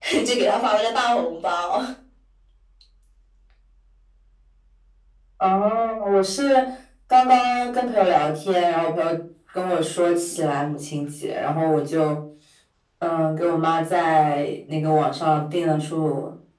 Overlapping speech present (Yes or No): No